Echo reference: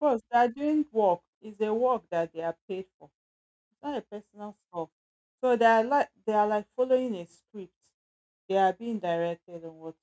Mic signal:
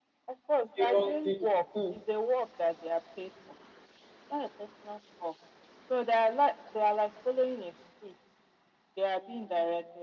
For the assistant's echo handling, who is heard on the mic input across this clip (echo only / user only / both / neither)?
both